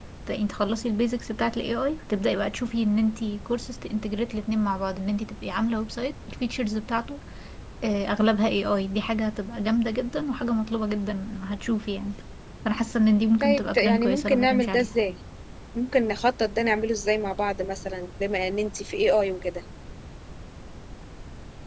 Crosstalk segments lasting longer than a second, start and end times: 13.4-14.9

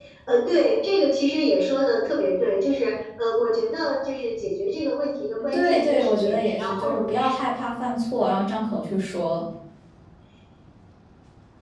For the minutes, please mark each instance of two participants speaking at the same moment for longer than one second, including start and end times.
5.5-7.2

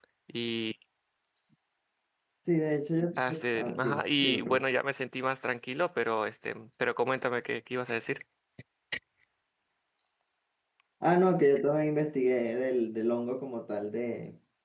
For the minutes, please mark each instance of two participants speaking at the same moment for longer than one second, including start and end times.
3.2-4.6

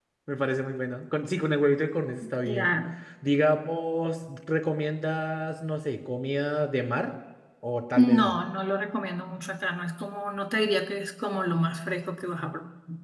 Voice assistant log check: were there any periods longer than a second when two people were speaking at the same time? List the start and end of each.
none

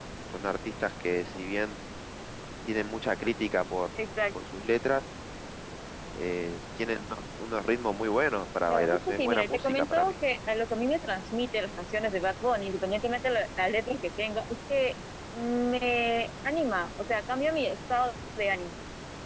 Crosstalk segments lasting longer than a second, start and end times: 8.7-10.1

